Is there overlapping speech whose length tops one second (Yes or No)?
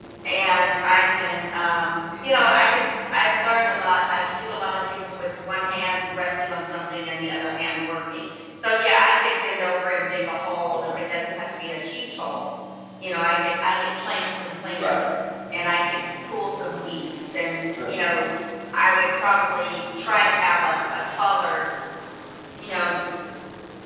No